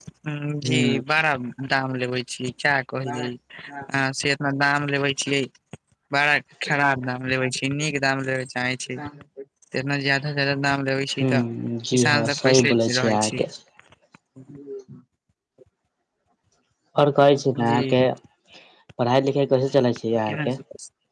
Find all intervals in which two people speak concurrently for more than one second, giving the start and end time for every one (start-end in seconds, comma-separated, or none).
11.9-13.4